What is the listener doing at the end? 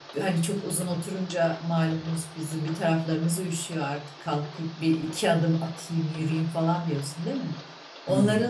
listening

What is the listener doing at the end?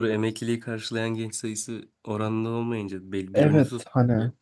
taking over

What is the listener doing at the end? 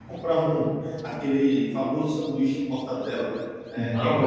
listening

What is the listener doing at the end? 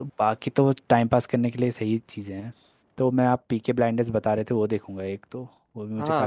taking over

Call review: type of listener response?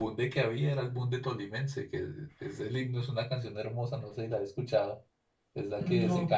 listening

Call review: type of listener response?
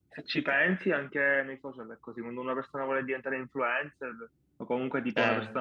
listening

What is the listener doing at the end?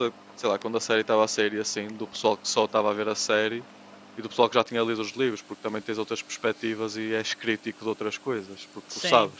taking over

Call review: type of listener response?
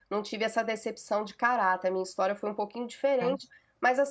listening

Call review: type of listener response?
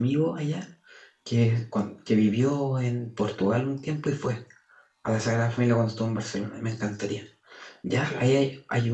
listening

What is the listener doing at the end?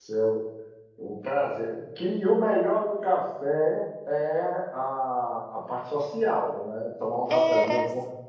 taking over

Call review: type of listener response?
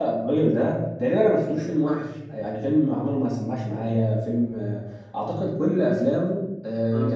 listening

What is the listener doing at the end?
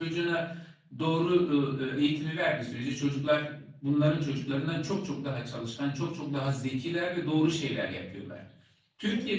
listening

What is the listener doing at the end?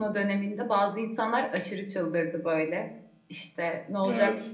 listening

